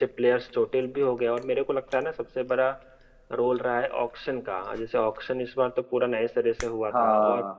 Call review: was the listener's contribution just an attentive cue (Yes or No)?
Yes